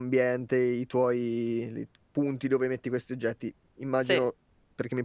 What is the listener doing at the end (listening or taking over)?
listening